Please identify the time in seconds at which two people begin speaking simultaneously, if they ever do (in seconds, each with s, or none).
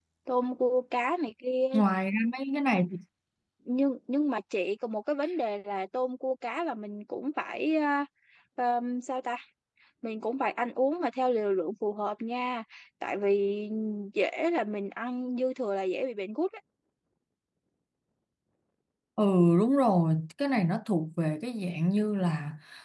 none